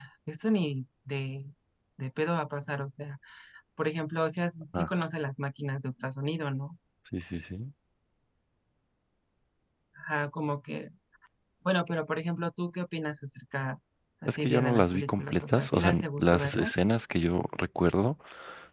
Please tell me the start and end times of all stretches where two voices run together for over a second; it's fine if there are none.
14.3-16.7

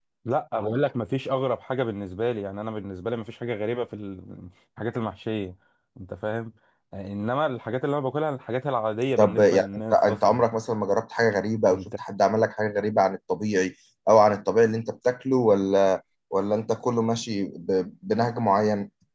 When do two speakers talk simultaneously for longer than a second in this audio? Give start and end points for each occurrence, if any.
9.2-10.4

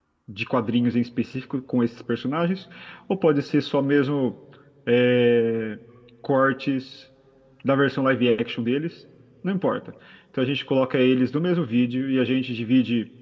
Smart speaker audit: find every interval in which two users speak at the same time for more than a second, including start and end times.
none

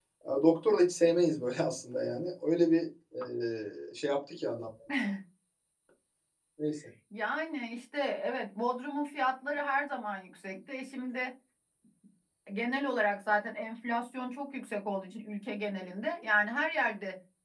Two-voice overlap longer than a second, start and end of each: none

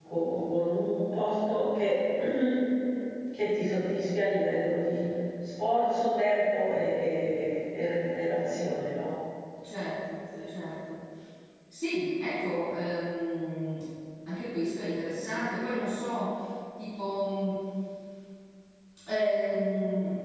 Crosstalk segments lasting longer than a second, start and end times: none

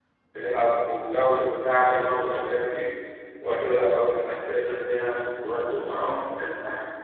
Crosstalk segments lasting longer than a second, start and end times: none

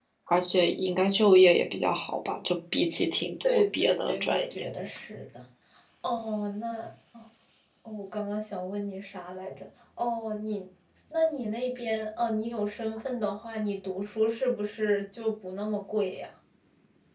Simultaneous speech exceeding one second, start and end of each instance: 3.4-4.7

